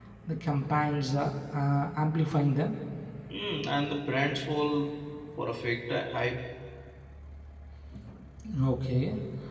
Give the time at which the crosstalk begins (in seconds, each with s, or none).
none